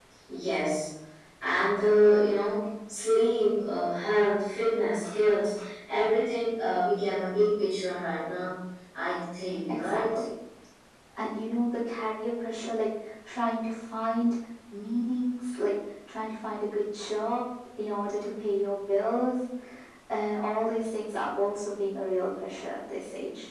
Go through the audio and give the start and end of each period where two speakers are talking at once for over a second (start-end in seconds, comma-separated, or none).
none